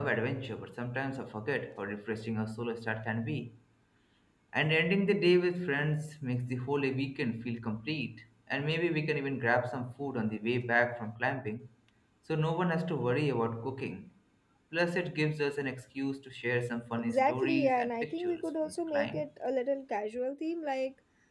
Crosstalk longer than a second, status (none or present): present